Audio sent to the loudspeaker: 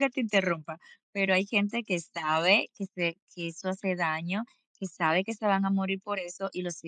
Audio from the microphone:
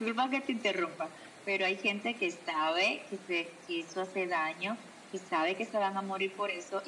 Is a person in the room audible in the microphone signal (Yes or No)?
No